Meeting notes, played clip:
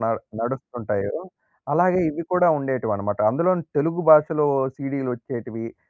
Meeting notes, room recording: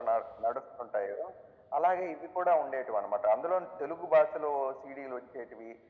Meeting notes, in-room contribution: none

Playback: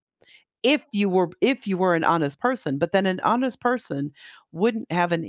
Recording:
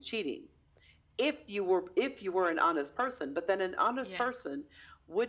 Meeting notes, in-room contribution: present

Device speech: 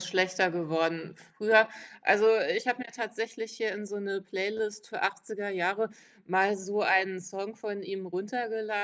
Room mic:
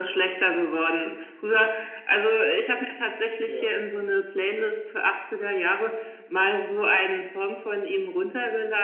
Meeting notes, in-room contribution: present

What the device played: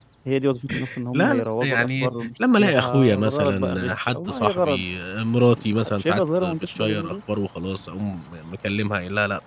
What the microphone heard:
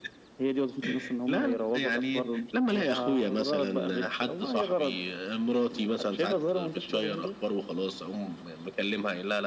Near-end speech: none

